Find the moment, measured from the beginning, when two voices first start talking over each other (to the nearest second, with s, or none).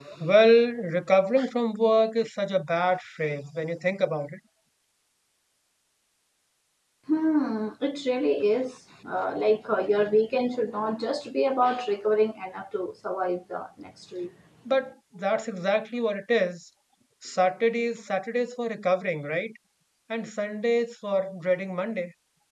none